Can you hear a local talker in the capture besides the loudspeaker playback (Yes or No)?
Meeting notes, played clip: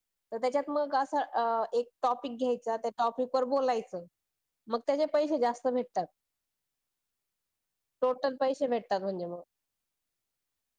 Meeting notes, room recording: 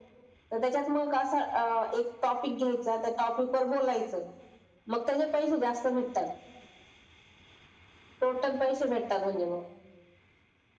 No